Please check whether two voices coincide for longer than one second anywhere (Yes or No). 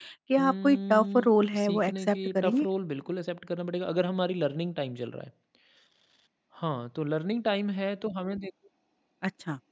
Yes